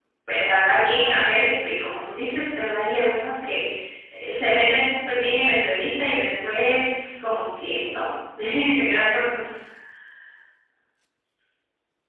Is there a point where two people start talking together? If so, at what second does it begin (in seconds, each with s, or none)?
none